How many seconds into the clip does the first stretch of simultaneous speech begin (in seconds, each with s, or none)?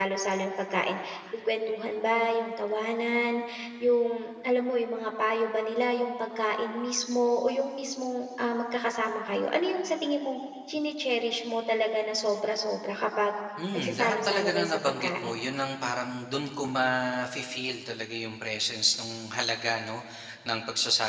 13.7 s